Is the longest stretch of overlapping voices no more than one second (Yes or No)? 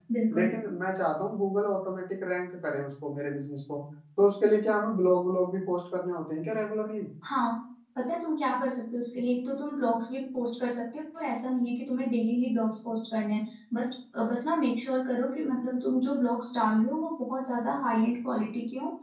Yes